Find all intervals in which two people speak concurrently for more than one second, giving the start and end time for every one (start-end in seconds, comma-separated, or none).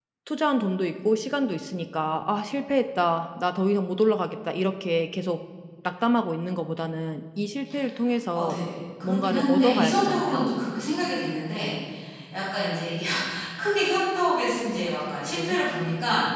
9.0-10.5